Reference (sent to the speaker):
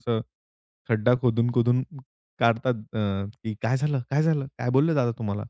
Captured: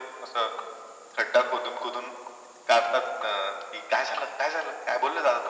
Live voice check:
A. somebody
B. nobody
B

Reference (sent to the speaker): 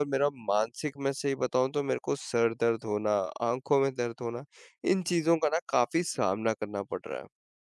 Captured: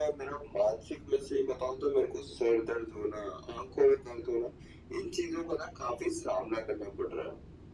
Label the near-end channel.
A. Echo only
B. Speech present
A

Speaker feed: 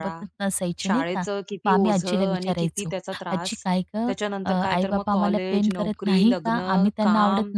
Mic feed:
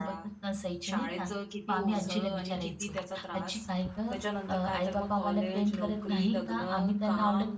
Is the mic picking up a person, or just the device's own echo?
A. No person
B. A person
A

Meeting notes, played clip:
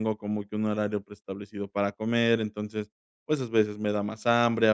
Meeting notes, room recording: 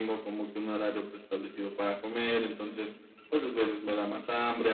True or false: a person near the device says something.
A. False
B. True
A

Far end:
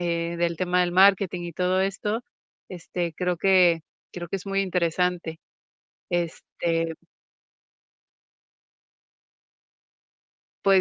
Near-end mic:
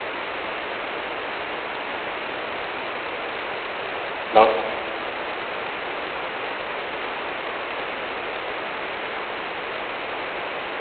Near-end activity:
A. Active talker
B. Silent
A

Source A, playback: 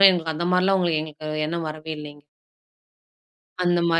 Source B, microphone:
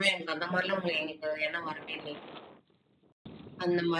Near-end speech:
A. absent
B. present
A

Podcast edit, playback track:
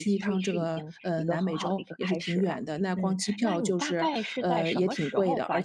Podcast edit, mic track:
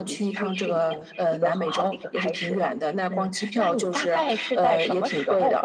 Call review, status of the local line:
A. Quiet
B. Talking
A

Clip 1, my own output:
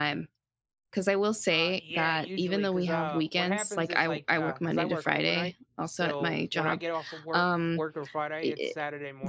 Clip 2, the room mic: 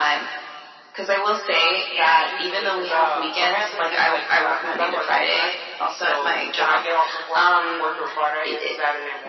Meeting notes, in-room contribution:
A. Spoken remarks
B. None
B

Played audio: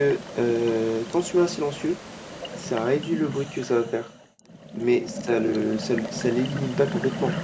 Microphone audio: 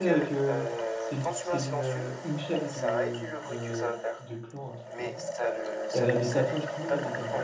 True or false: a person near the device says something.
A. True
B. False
A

